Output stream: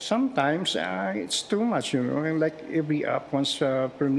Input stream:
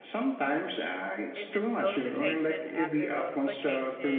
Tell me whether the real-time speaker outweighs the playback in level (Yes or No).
No